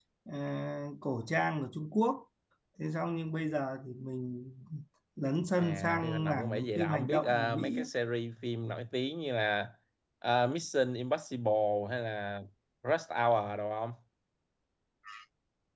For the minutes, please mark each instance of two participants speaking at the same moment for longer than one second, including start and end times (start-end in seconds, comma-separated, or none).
5.6-7.9